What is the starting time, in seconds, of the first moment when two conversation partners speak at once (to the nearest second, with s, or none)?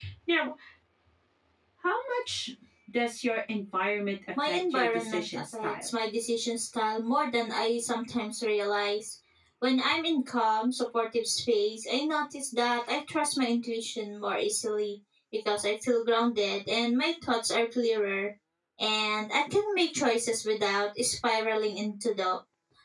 4 s